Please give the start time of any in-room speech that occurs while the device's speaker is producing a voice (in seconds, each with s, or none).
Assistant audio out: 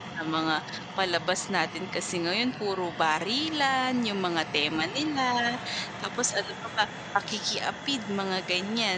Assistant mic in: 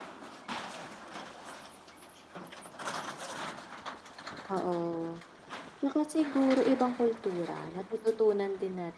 4.5 s